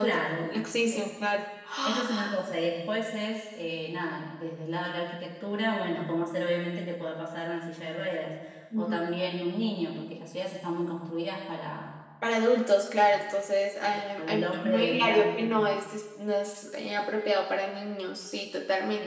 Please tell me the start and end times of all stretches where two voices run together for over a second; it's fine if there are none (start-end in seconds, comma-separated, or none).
14.2-15.5